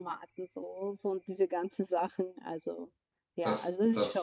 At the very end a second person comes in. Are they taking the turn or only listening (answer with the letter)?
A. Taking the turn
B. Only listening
A